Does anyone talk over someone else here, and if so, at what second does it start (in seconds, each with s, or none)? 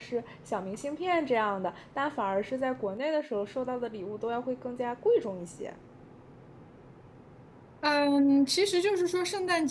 none